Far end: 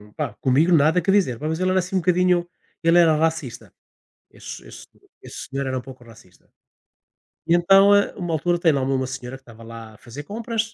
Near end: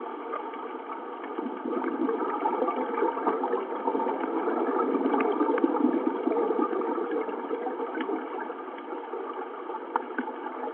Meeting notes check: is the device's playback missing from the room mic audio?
Yes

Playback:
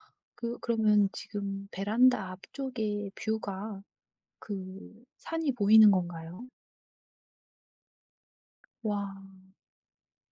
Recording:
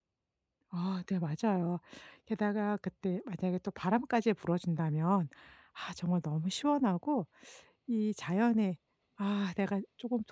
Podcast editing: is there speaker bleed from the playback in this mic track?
No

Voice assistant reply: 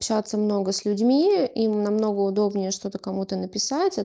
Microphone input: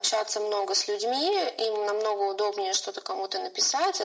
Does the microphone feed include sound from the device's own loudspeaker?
Yes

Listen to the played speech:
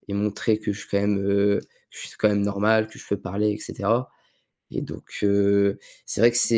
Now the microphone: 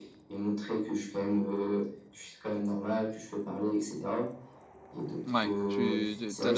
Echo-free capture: No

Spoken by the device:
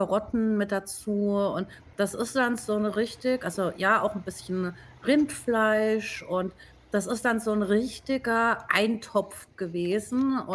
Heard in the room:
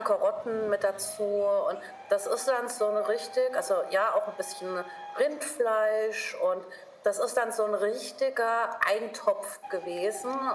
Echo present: Yes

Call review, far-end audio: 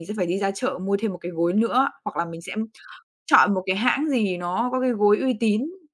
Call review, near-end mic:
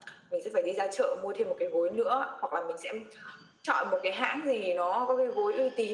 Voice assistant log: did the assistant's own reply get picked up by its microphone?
Yes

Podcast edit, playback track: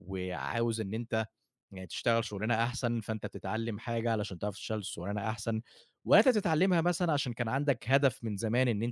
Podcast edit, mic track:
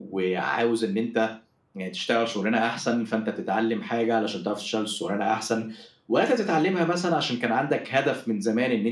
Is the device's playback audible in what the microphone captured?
Yes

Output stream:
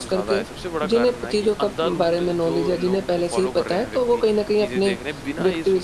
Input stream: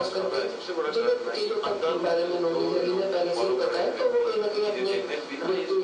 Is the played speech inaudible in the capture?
No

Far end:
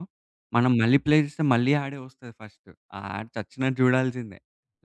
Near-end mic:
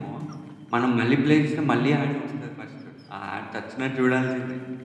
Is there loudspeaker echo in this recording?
Yes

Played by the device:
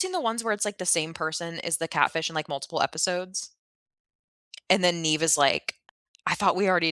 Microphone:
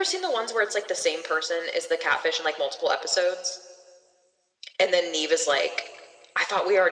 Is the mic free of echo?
No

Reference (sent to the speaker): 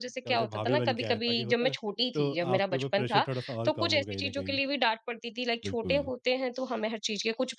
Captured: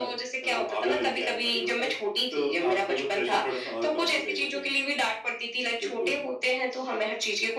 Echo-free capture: No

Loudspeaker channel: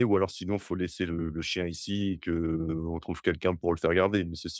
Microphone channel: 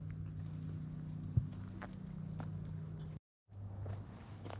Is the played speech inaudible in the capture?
Yes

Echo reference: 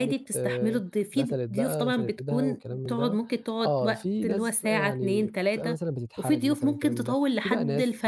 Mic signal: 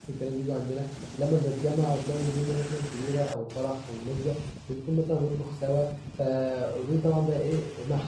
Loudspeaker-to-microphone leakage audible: No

